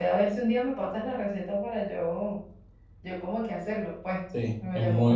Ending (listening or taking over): taking over